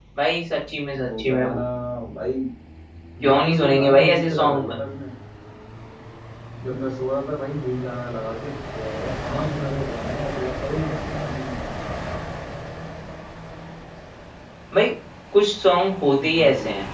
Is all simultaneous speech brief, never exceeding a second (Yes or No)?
No